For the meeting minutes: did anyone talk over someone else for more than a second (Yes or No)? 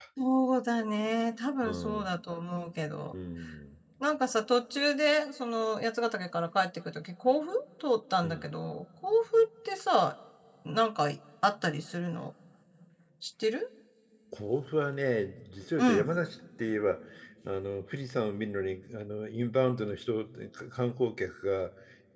No